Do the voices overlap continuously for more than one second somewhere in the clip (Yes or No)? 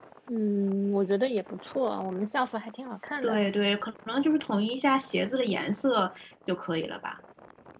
No